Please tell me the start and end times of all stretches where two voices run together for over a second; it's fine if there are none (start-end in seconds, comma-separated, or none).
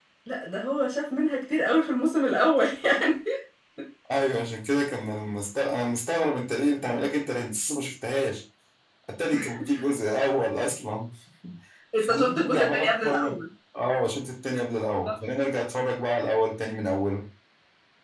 12.0-13.4